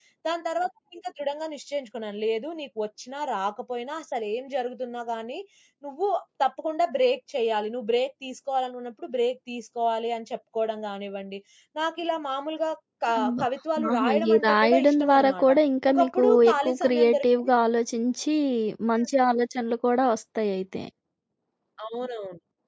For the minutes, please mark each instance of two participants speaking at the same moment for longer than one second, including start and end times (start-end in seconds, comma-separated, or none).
13.9-15.5, 15.9-17.5